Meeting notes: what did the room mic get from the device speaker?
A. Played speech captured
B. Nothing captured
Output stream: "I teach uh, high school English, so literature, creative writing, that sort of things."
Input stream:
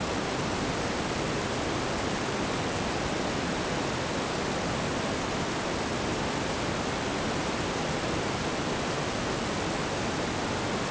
B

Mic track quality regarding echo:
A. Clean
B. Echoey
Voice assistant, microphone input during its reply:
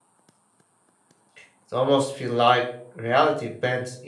A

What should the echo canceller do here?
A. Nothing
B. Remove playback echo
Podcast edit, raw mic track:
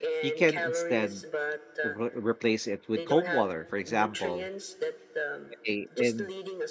B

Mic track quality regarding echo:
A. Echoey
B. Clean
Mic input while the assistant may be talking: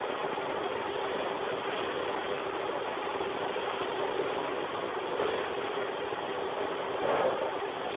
B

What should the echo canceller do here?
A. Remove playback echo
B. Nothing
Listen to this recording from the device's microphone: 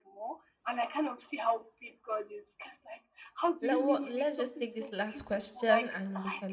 A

